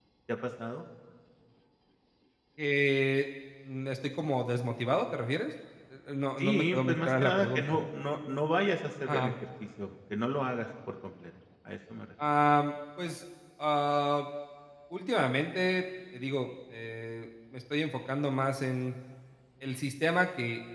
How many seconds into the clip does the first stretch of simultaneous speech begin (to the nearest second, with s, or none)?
6 s